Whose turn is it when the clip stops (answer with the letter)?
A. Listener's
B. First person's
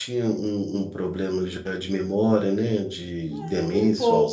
A